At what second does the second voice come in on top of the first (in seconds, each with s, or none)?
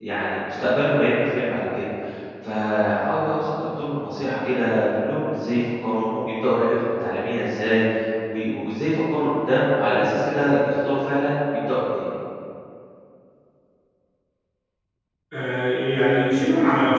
none